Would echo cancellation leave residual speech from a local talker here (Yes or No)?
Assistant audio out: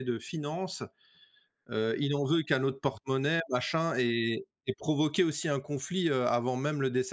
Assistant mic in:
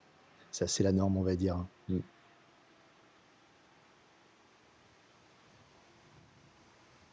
Yes